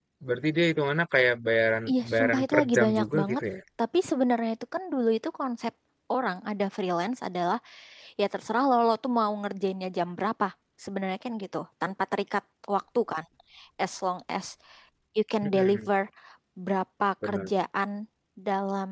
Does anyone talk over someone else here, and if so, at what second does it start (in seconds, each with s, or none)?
1.9 s